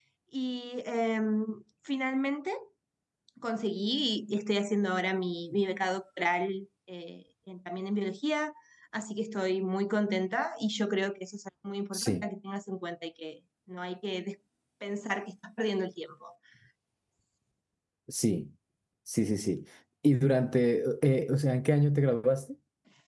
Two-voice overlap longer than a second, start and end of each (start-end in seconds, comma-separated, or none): none